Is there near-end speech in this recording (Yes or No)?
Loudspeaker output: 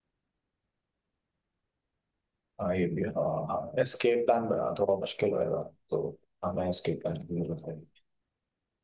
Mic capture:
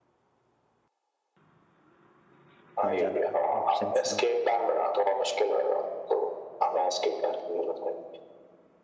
Yes